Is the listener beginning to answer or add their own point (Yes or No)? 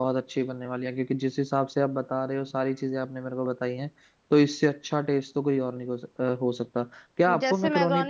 Yes